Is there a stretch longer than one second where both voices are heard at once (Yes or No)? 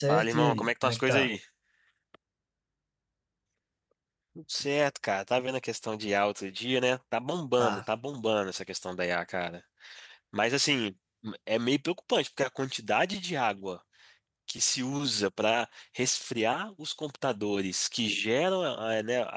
Yes